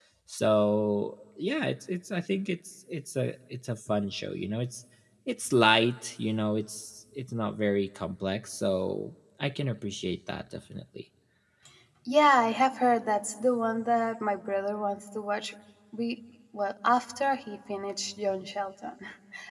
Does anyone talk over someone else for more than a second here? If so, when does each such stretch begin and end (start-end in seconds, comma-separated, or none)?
none